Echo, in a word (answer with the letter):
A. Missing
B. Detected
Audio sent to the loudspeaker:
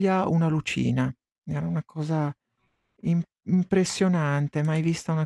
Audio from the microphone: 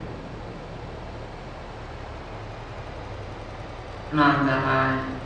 A